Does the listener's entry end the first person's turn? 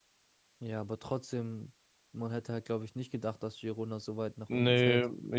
Yes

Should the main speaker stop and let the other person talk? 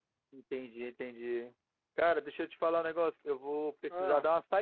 No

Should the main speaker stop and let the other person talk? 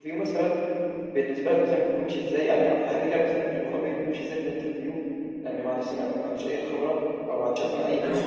Yes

